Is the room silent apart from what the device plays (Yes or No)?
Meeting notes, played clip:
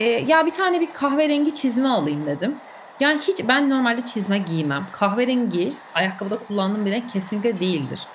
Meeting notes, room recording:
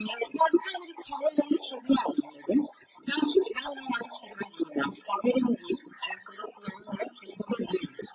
Yes